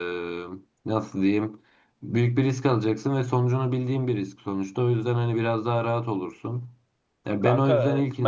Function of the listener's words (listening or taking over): taking over